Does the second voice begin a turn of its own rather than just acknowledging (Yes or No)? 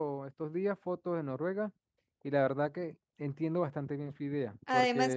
Yes